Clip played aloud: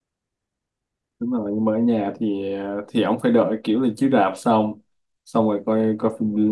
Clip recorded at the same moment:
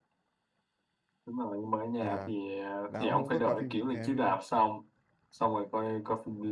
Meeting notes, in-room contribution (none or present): present